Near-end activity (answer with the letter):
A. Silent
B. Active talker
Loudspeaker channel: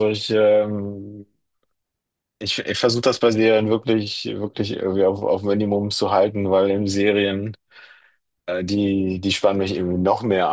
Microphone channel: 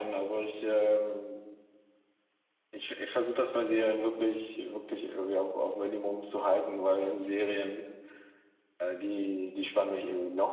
A